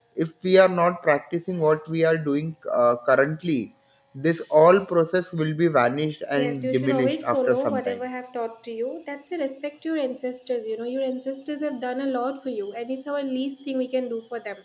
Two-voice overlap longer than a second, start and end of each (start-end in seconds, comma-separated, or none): 6.4-8.0